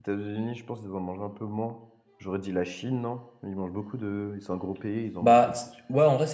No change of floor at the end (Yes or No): No